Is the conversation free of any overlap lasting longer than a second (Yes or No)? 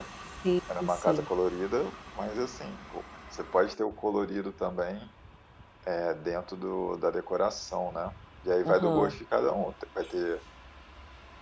Yes